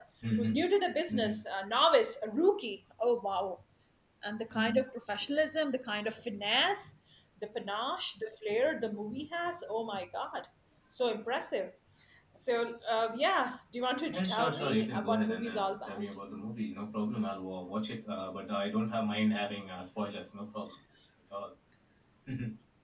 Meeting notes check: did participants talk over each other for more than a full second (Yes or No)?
Yes